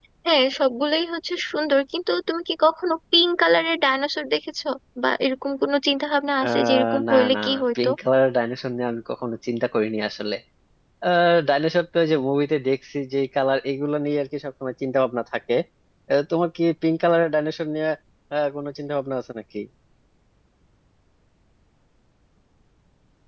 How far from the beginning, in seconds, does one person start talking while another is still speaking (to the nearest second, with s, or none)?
6 s